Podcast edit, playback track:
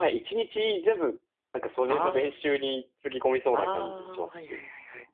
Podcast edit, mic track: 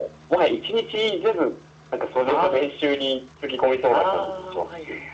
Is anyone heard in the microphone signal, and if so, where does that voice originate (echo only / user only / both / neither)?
echo only